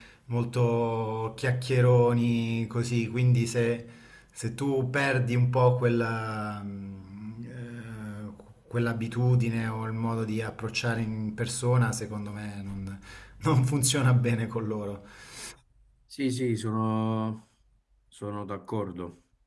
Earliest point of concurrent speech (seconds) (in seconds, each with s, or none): none